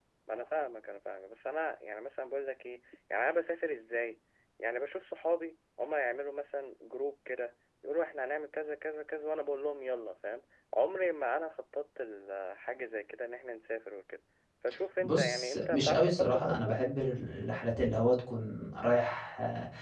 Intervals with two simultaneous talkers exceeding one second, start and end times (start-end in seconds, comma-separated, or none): 15.0-16.8